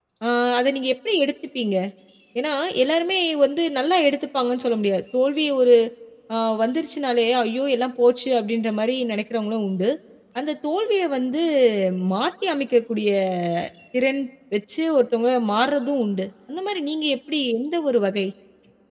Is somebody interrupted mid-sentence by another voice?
No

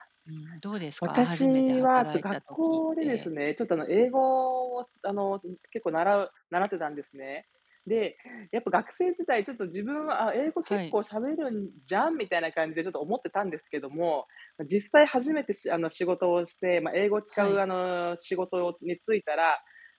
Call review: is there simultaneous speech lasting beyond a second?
Yes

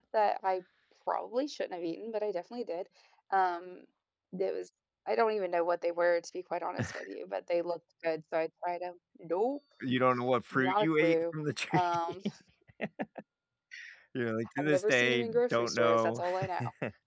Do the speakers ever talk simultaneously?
Yes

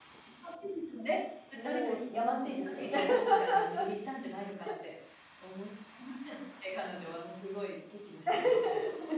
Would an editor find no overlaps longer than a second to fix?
No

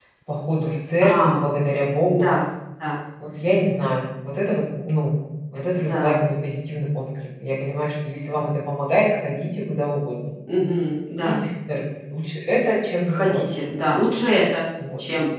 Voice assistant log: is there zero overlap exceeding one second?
Yes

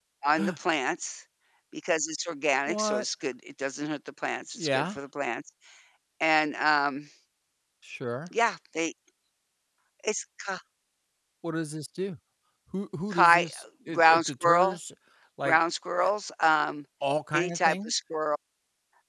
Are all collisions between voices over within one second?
No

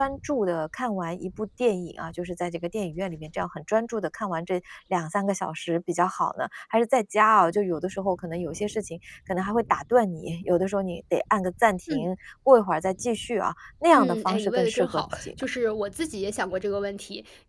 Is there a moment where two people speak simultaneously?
Yes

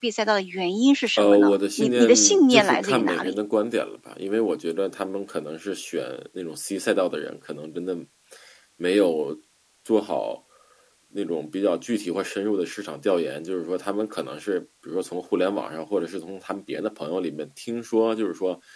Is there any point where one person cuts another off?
Yes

